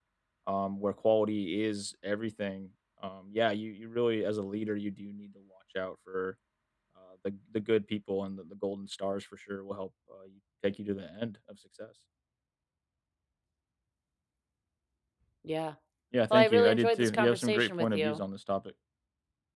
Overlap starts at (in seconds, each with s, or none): 16.3 s